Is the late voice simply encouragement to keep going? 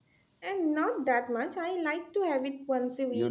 No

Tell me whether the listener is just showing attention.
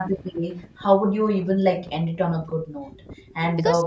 Yes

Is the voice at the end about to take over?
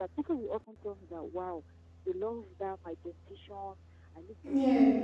No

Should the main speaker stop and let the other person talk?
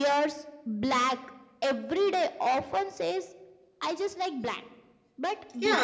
Yes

